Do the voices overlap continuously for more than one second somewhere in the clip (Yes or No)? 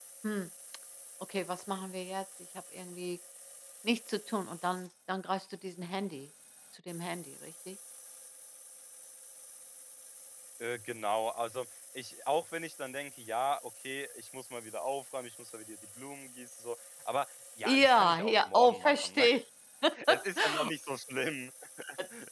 Yes